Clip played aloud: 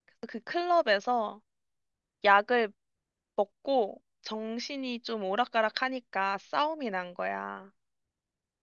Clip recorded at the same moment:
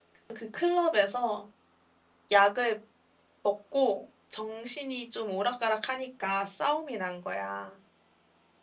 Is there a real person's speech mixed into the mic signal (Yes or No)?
No